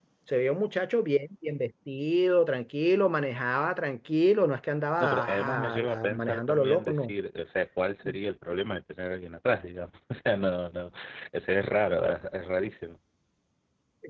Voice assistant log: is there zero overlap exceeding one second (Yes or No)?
No